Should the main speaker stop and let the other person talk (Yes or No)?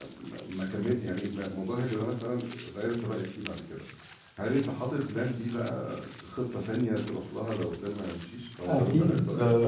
Yes